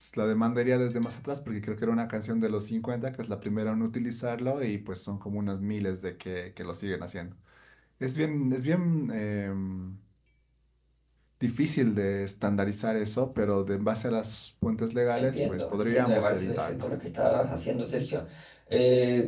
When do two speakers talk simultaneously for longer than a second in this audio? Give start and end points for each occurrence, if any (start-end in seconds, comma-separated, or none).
15.1-16.9